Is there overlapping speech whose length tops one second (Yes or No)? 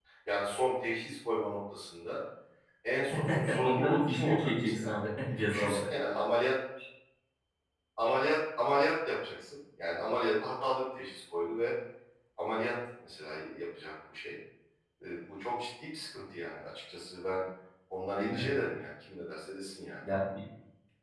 Yes